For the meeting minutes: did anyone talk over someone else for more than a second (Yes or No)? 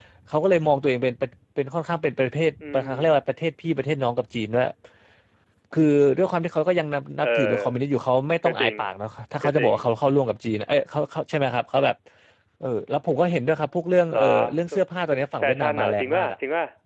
Yes